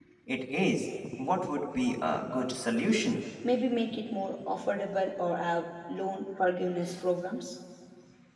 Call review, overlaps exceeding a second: none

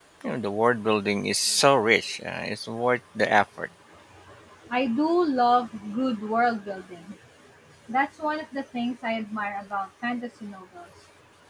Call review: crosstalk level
none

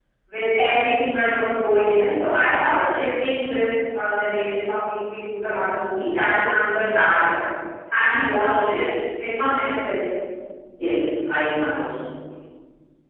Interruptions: none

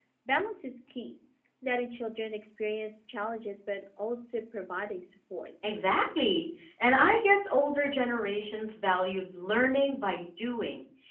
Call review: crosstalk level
none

